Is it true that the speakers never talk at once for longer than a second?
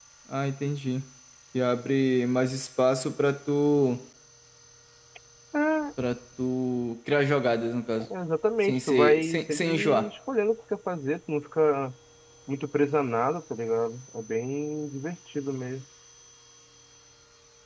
No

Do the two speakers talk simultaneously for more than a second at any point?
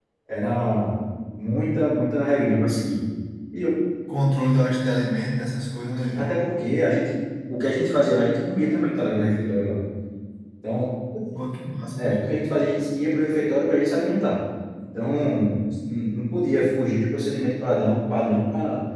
No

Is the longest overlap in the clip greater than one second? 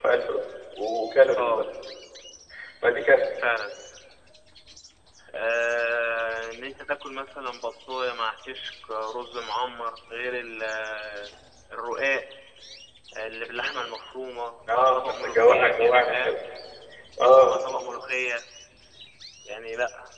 Yes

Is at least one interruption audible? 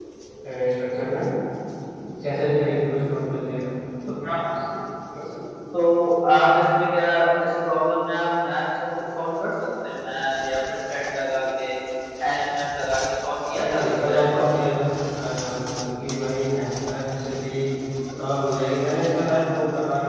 Yes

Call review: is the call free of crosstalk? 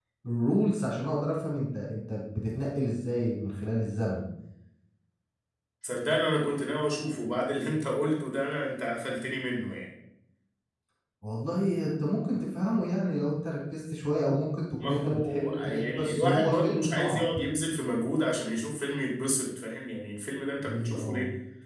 No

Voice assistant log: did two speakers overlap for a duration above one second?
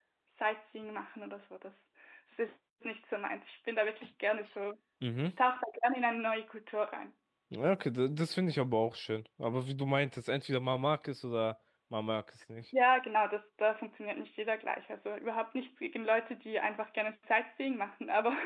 No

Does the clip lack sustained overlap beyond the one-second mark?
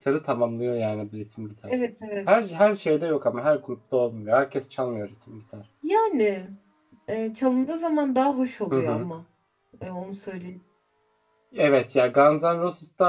Yes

